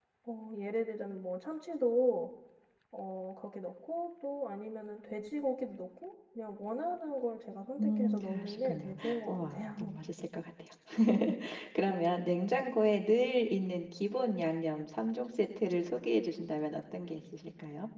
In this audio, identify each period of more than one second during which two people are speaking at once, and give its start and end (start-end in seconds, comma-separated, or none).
7.8-9.9